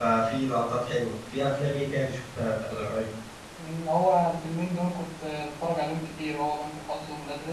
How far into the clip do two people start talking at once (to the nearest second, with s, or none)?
none